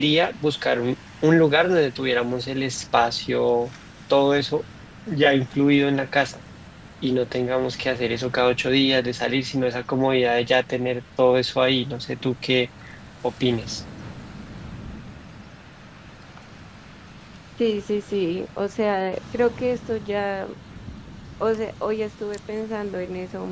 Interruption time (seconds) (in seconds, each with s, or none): none